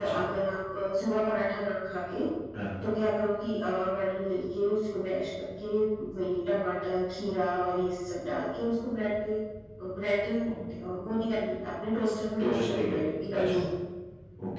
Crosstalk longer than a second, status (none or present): present